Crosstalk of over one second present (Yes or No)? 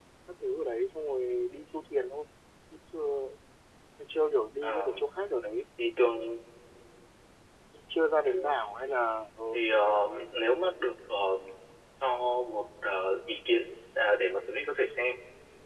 No